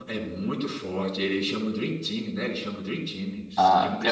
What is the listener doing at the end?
taking over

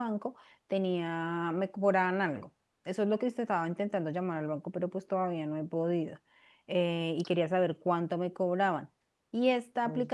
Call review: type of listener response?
listening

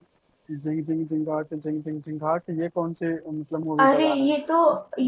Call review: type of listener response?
taking over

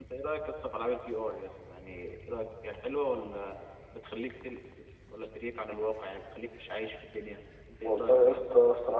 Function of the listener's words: taking over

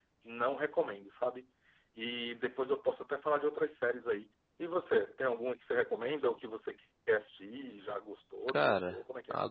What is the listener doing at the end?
taking over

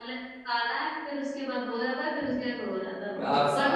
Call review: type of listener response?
taking over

